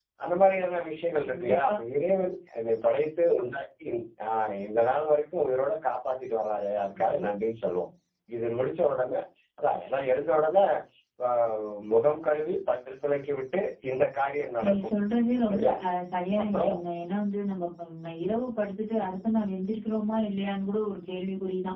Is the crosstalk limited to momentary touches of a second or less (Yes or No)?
Yes